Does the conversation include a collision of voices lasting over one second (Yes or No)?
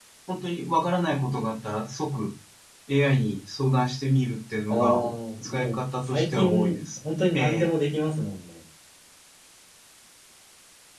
Yes